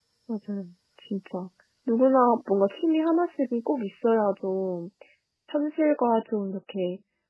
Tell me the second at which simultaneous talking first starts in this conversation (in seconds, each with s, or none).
none